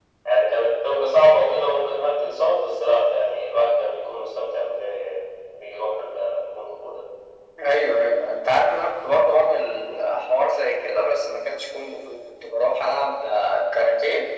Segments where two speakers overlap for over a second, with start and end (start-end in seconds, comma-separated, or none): none